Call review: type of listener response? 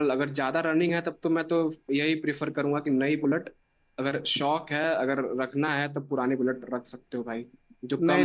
taking over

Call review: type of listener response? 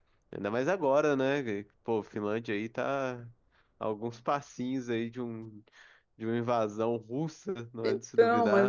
taking over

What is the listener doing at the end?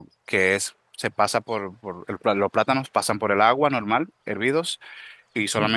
listening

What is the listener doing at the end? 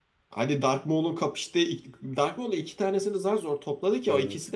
listening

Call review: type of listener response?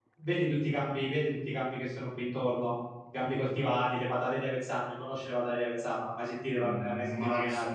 taking over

